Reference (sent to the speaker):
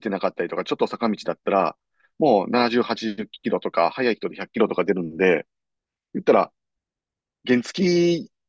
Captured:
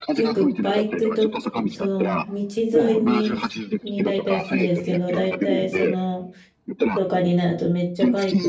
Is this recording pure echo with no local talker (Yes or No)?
No